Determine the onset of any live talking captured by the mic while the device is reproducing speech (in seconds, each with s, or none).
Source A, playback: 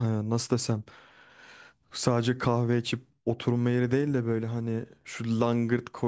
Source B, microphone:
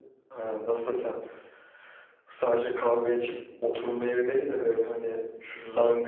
none